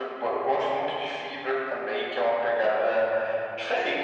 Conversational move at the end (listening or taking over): listening